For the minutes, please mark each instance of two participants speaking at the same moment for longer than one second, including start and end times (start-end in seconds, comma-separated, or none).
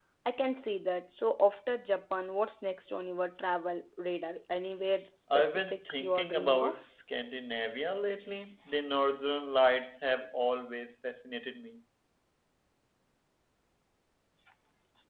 5.3-6.8